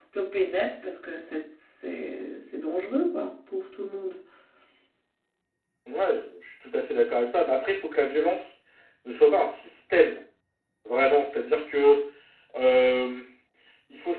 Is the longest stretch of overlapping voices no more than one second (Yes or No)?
Yes